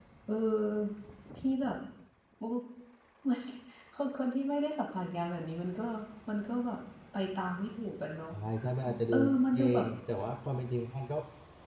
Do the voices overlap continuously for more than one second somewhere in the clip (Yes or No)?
No